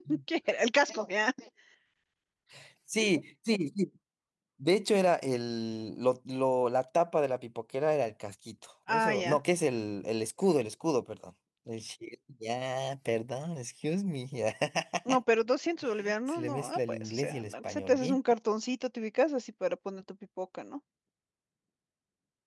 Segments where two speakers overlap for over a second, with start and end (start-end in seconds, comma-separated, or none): 16.3-18.2